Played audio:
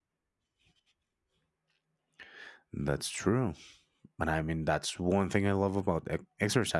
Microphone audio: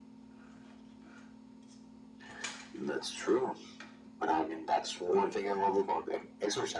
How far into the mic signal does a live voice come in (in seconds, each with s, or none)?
none